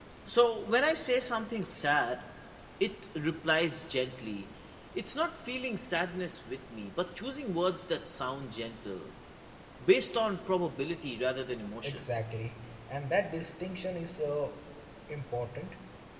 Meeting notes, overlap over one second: none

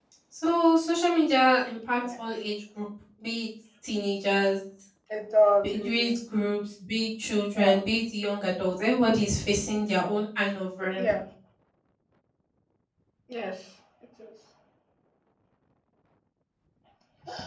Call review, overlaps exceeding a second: none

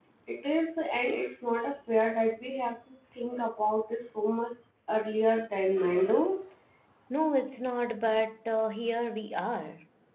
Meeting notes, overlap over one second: none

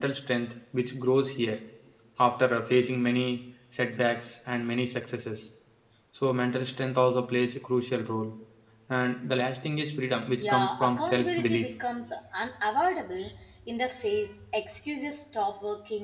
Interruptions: present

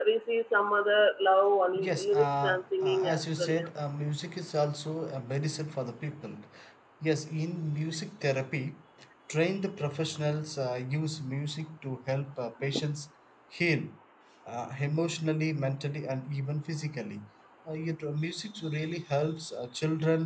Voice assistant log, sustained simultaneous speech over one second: present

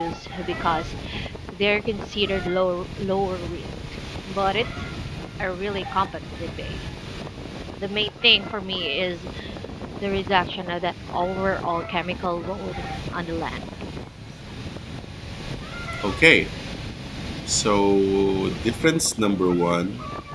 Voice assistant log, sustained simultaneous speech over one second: none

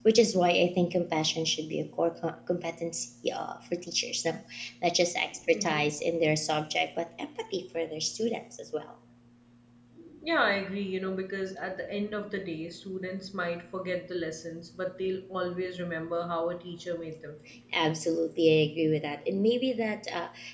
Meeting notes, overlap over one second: none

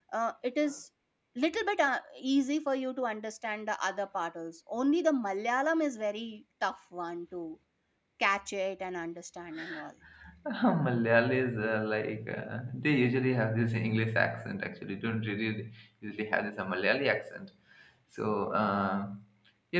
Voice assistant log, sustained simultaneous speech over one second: none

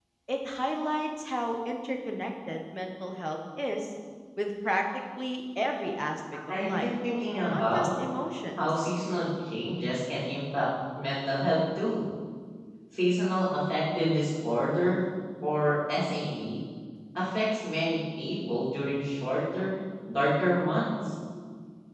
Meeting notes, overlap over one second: none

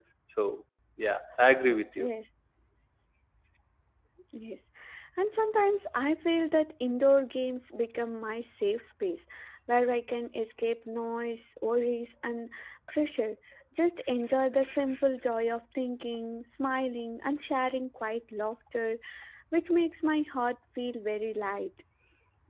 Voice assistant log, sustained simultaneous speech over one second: none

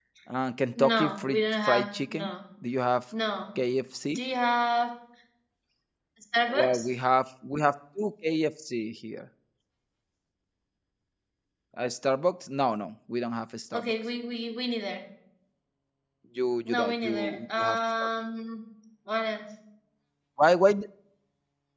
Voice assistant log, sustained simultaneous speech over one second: present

